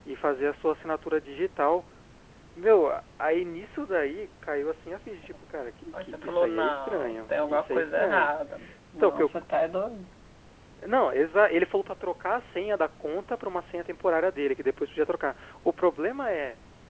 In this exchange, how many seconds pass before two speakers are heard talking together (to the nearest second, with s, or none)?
6 s